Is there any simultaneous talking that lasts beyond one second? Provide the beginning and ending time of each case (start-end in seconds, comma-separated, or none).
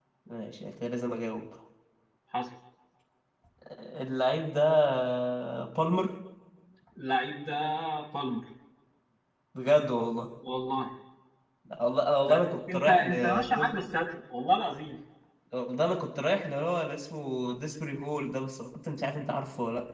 12.3-13.7